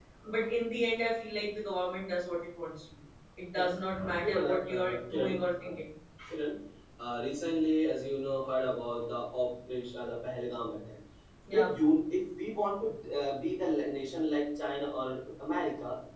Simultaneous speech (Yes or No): Yes